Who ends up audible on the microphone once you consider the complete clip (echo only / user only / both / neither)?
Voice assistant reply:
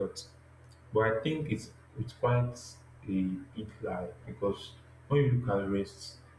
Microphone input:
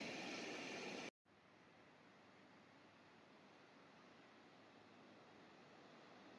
neither